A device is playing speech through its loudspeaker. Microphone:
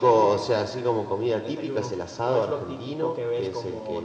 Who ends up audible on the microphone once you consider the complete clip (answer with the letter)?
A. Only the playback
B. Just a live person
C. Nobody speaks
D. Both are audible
A